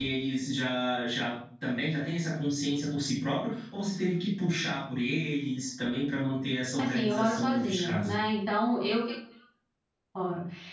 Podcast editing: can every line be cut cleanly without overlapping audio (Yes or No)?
No